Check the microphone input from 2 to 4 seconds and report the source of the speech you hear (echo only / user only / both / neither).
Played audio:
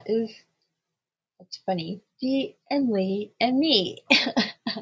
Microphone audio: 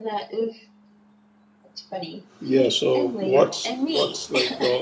both